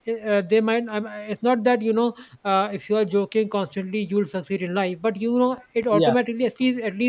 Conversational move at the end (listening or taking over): listening